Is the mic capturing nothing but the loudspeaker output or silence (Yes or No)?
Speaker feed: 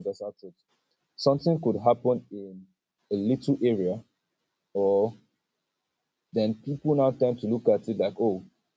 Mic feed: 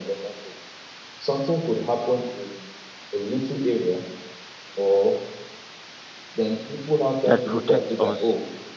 No